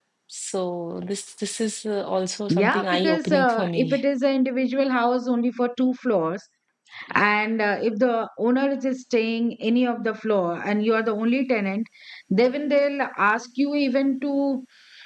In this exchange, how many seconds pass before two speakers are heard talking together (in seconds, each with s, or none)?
2.5 s